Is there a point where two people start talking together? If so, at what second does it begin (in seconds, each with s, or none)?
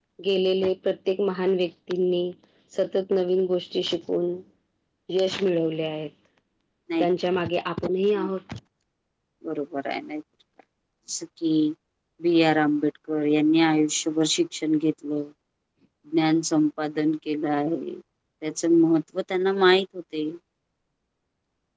none